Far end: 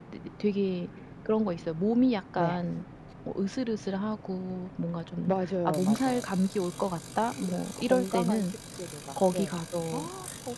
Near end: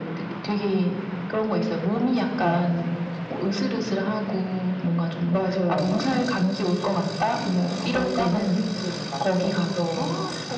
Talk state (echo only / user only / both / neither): echo only